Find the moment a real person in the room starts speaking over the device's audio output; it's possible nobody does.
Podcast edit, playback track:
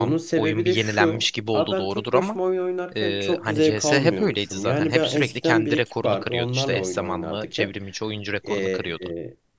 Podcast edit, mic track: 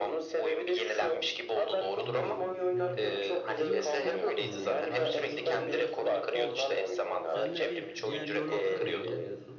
1 s

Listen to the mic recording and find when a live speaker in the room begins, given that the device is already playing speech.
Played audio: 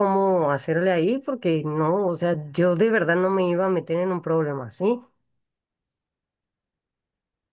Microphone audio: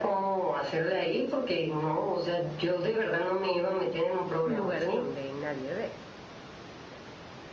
4 s

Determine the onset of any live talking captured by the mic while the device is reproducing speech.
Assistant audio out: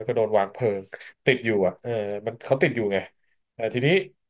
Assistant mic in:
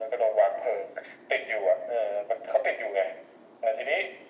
none

